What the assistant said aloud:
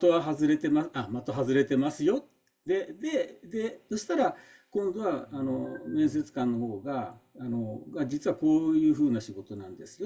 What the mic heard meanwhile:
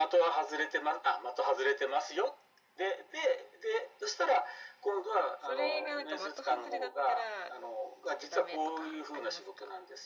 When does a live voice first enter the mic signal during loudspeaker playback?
5.4 s

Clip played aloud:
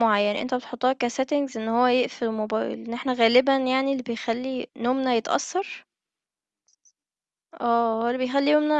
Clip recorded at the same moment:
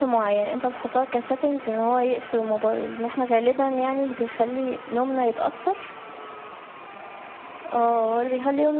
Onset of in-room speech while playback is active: none

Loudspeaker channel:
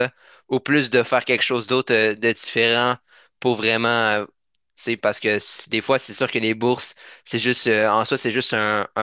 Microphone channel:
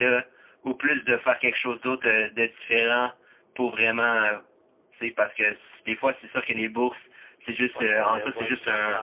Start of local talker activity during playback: 7.7 s

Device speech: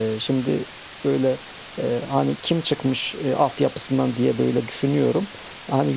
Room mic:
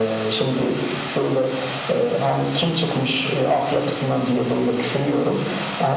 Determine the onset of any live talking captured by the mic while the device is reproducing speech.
none

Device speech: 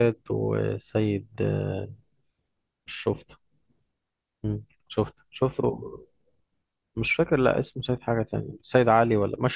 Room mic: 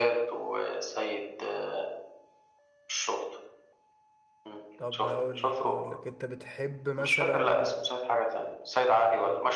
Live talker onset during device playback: 4.8 s

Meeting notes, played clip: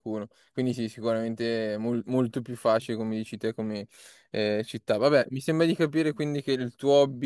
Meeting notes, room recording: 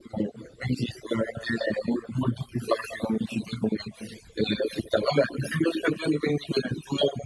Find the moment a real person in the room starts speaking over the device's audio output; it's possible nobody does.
none

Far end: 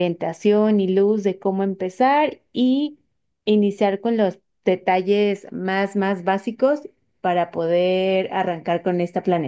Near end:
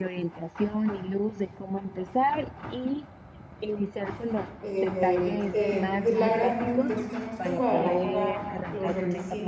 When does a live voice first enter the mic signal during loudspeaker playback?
4.6 s

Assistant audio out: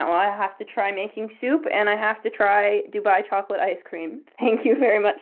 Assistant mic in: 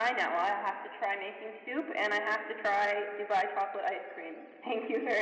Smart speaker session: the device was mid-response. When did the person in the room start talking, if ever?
none

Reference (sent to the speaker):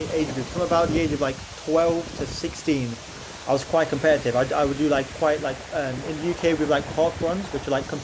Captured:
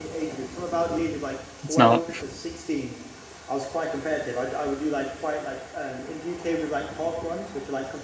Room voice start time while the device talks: 1.6 s

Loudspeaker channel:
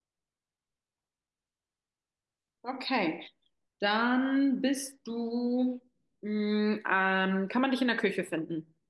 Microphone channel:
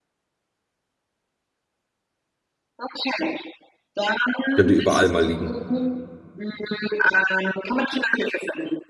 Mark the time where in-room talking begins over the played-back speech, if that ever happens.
4.5 s

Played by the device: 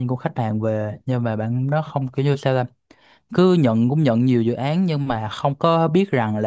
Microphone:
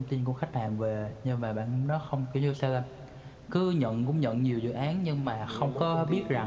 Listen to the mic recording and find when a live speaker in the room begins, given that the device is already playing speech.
4.8 s

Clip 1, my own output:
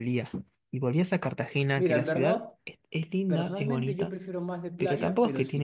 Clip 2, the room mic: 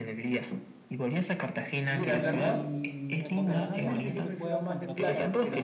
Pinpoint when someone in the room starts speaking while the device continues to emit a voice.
1.8 s

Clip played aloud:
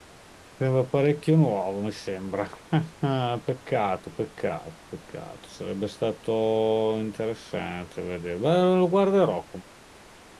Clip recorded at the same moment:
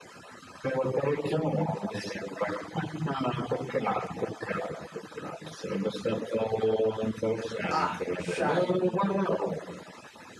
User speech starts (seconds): 7.7 s

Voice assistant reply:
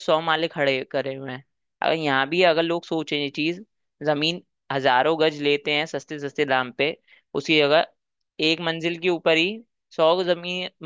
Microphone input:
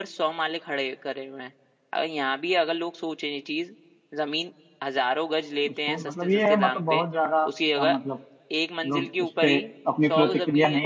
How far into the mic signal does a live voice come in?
5.7 s

